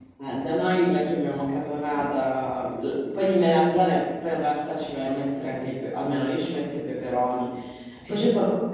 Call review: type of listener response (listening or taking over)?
listening